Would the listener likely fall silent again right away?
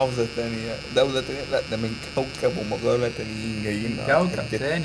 No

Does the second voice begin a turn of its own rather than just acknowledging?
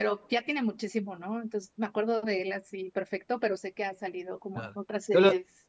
Yes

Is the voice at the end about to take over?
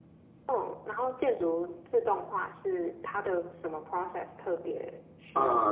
Yes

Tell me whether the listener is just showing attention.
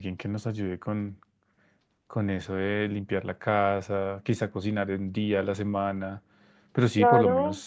No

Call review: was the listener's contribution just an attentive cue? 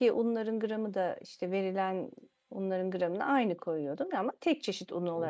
No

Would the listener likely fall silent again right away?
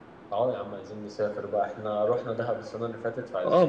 No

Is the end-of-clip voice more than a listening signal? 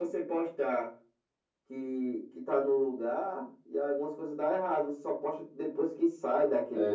Yes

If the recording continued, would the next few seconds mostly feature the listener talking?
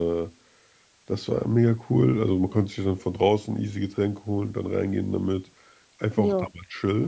No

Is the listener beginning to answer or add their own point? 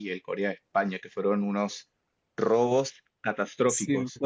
Yes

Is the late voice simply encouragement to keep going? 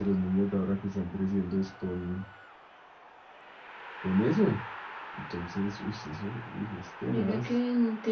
No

